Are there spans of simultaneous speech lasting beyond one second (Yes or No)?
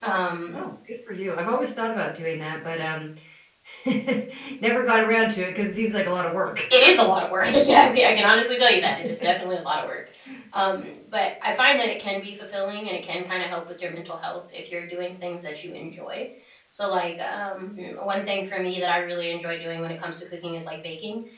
No